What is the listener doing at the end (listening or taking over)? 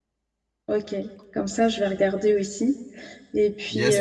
taking over